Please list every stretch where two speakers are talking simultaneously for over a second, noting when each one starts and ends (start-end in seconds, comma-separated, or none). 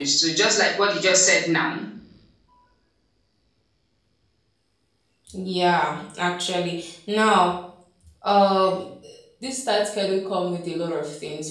none